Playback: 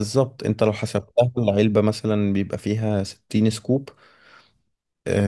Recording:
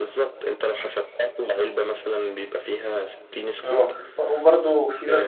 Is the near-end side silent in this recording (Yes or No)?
No